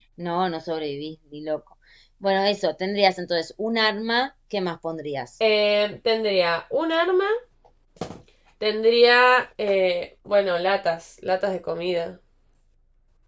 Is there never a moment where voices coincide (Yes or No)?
Yes